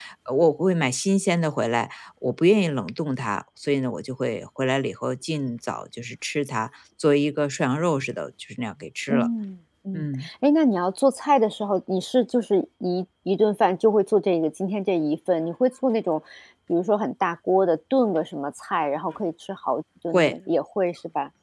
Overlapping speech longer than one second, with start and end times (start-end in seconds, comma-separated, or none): none